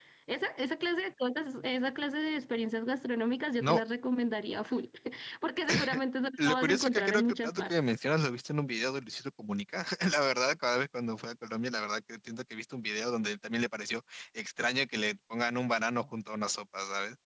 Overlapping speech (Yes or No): Yes